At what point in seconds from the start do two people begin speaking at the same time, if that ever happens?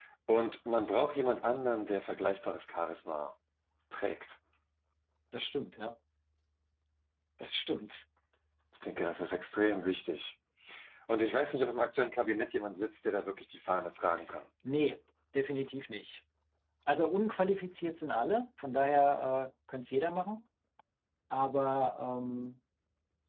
none

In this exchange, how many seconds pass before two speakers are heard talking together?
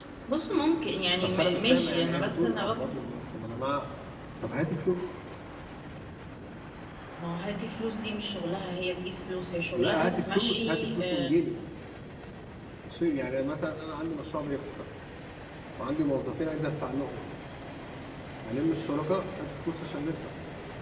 1 s

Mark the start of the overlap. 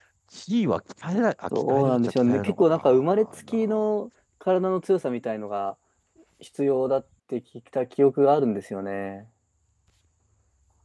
2 s

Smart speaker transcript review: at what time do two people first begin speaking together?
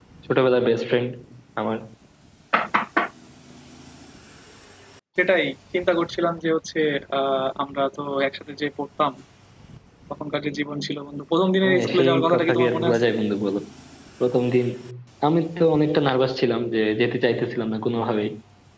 12 s

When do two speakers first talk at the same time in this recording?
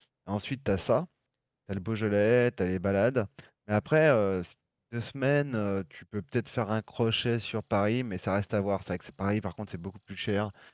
none

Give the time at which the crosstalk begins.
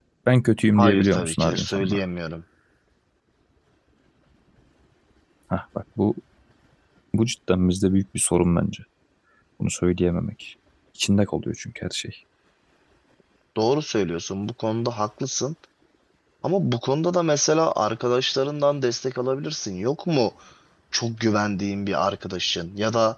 1 s

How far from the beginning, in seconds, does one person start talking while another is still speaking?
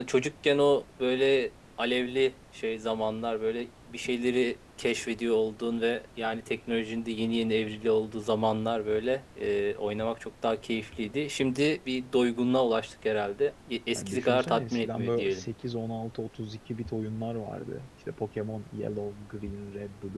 14 s

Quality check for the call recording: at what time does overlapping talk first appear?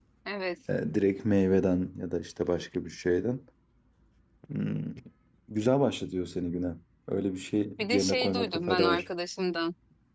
8 s

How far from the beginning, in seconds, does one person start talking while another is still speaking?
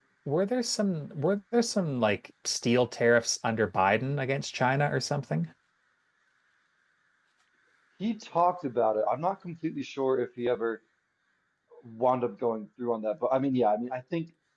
none

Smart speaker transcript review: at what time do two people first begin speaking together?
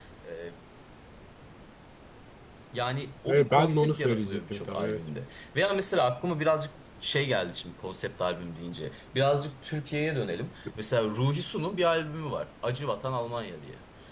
3 s

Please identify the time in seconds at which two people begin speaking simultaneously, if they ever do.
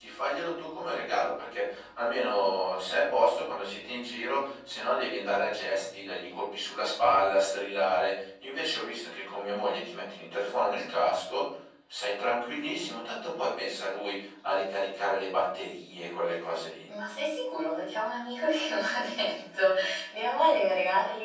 none

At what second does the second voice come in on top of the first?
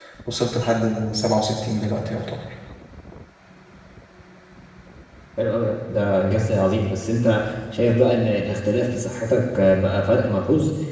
none

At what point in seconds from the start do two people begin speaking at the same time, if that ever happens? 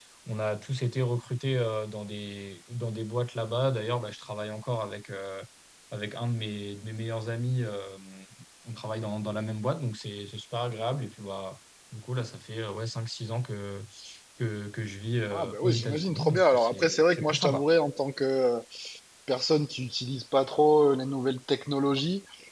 15 s

